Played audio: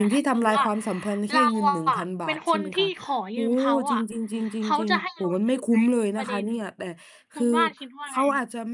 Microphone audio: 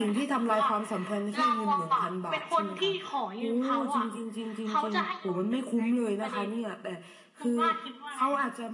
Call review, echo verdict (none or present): present